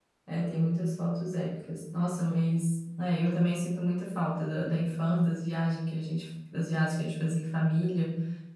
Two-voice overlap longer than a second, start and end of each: none

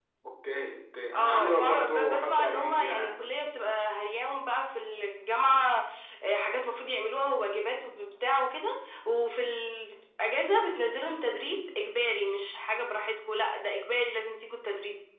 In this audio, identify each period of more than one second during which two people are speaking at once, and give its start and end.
1.1-3.1

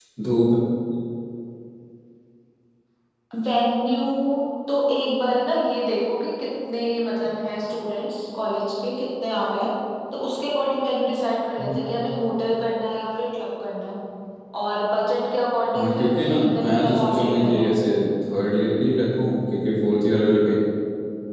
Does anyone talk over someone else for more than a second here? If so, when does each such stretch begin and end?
15.8-17.7

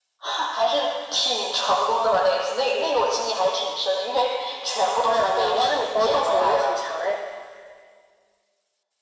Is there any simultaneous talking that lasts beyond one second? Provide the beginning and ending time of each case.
5.1-6.8

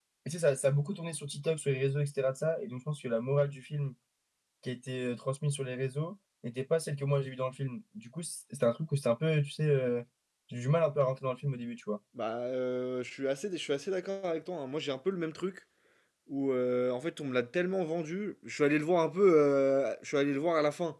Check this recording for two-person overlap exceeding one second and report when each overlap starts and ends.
none

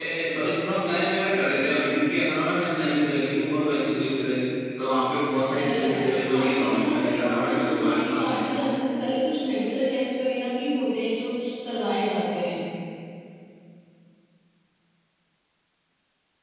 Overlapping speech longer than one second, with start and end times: 5.6-8.5

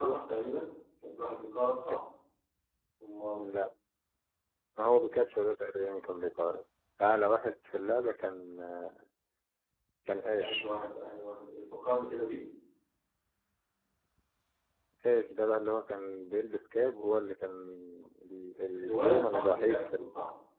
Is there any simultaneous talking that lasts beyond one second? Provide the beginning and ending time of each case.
18.8-20.0

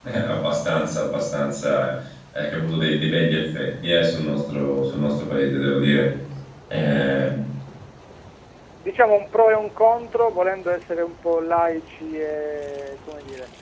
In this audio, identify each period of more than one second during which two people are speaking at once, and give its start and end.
none

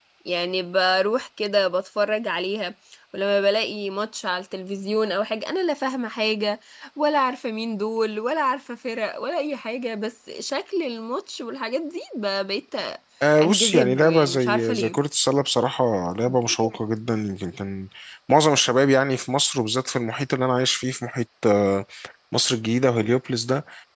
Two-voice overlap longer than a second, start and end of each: 13.4-15.0

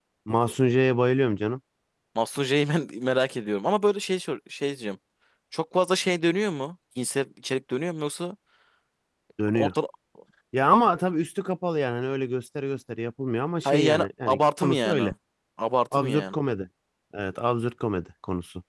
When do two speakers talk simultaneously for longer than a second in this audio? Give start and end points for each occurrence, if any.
13.6-15.1

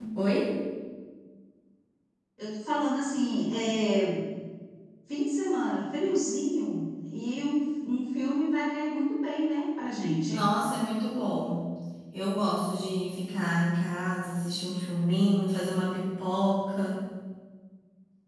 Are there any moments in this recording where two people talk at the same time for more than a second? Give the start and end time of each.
none

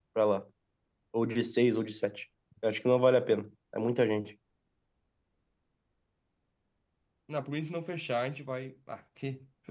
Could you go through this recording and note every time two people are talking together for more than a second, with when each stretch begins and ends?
none

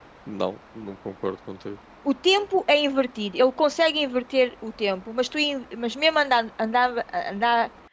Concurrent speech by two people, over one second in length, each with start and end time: none

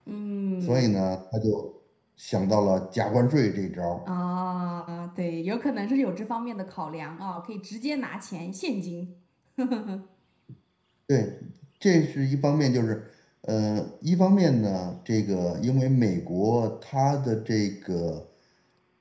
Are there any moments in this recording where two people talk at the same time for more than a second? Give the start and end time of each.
none

